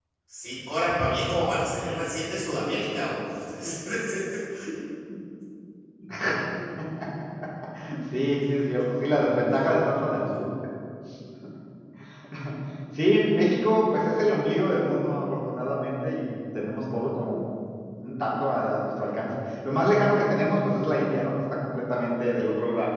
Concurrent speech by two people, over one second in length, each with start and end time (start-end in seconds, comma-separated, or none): none